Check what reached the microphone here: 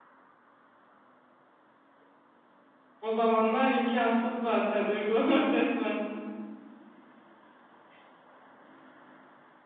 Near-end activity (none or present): present